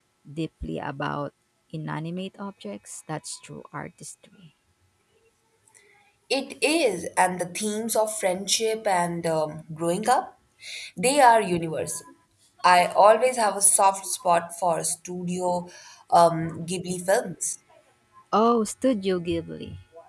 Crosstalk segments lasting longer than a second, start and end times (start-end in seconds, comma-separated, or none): none